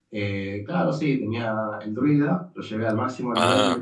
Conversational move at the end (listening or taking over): listening